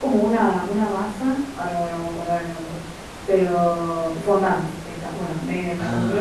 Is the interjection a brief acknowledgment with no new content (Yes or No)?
Yes